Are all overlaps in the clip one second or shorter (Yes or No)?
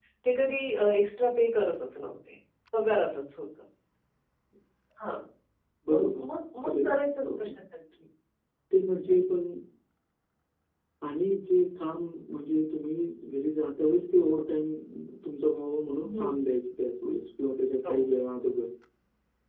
Yes